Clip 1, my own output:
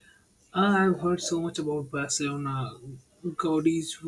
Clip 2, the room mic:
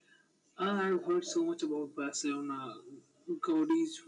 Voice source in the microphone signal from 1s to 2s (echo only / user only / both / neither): echo only